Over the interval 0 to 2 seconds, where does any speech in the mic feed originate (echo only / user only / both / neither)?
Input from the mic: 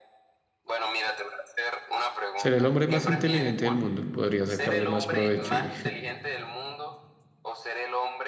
echo only